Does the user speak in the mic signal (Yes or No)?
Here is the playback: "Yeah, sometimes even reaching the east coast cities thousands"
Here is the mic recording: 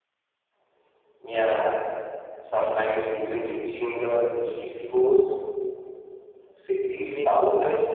Yes